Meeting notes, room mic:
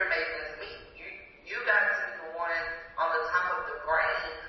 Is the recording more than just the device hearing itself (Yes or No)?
No